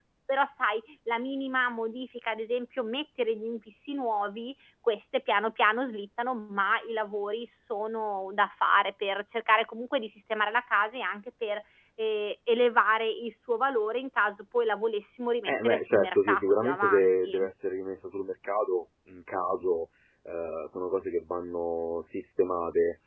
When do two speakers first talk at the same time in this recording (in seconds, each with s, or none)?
15.5 s